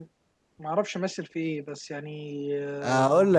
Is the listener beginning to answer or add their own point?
Yes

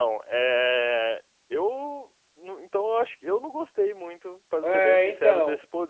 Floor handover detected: Yes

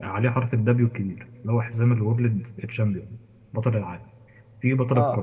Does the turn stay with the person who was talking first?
Yes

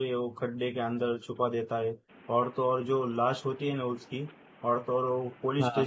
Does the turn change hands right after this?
No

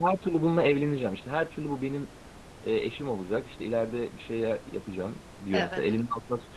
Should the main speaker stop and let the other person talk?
No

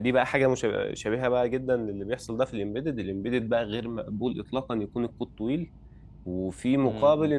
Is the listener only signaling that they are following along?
Yes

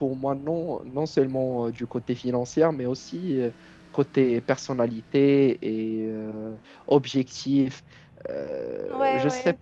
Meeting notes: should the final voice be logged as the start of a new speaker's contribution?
Yes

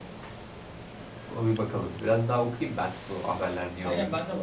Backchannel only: No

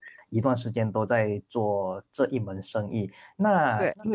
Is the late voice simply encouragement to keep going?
Yes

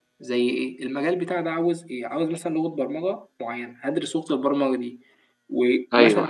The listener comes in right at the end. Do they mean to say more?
No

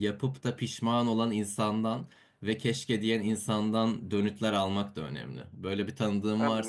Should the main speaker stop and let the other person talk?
Yes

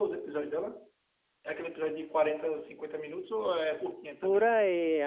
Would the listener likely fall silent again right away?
No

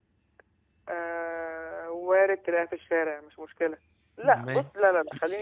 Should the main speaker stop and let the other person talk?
No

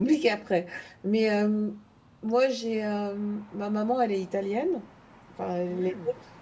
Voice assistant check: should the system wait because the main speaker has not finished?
Yes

